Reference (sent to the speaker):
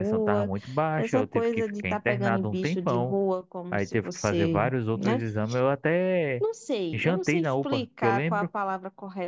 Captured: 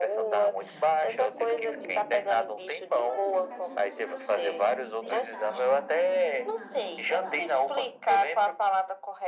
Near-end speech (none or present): present